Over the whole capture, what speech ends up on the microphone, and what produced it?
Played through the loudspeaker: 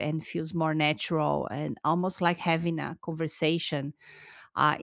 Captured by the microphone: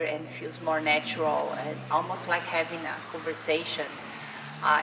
echo only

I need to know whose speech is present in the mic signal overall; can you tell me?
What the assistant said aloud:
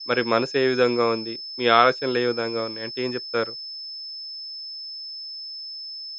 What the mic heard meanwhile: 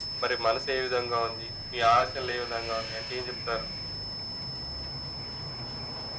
echo only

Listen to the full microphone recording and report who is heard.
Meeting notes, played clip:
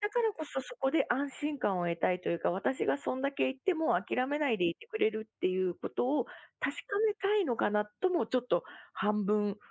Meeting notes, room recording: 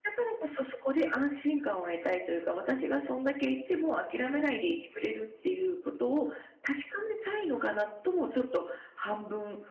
echo only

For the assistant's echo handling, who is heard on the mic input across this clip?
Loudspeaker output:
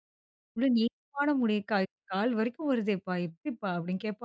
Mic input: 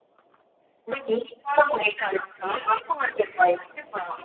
echo only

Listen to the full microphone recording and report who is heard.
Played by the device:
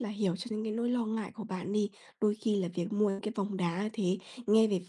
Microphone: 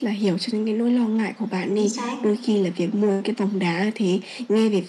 both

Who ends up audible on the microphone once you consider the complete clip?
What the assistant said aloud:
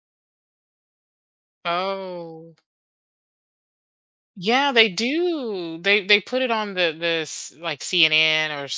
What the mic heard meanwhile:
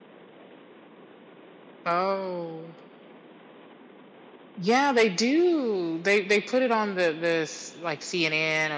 echo only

